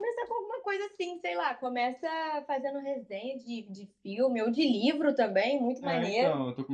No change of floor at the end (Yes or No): No